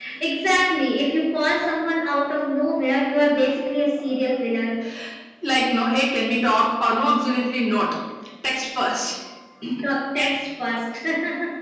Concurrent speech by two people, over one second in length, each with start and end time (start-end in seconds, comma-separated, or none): none